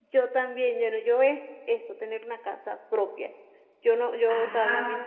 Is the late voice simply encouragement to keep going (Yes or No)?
Yes